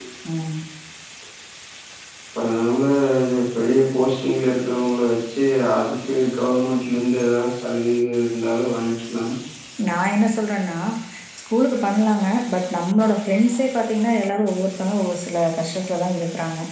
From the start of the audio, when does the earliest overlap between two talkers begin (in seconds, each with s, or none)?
none